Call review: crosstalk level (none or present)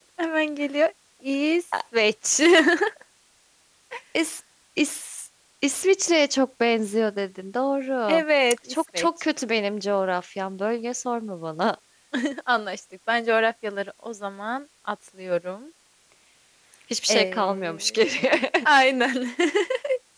present